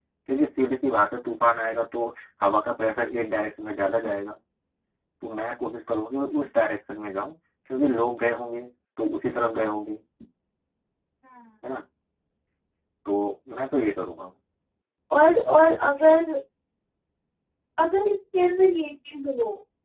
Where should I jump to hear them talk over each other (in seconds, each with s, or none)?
none